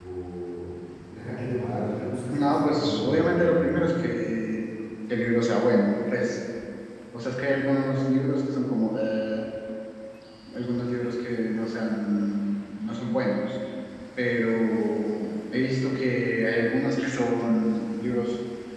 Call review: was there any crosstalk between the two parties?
Yes, from 2.3 s

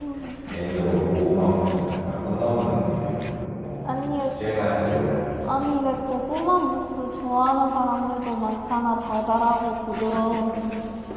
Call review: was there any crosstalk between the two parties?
No

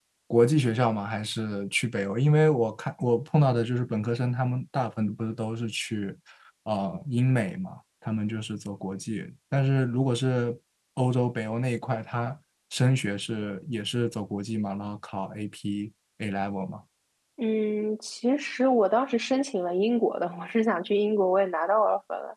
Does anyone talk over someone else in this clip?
No

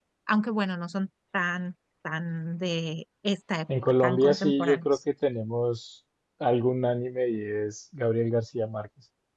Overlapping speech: Yes, from 3.7 s

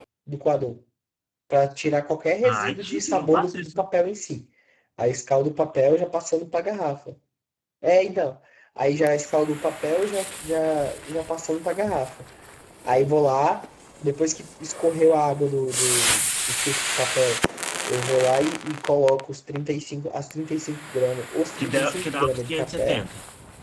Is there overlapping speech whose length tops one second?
Yes, from 2.4 s

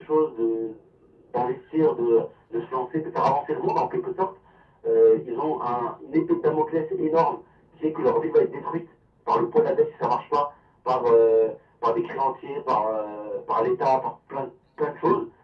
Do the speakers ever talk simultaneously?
No

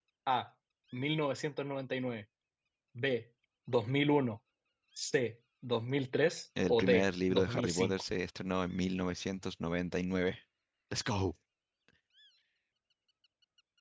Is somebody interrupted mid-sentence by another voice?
Yes, from 6.6 s

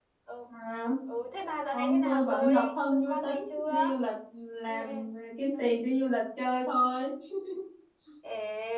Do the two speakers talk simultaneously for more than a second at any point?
Yes, from 1.7 s

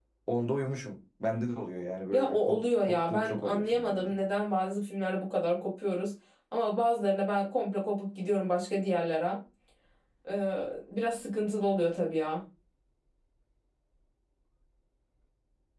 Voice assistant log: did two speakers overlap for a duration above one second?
Yes, from 2.1 s

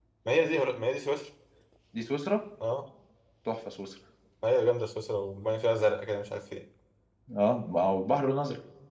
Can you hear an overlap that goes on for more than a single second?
No

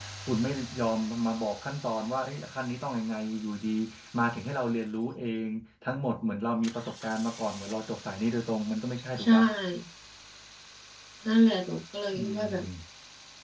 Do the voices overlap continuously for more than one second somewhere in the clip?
No

